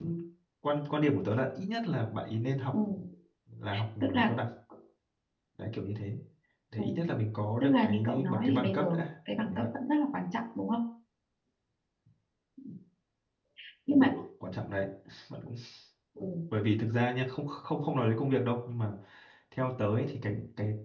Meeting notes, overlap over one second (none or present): present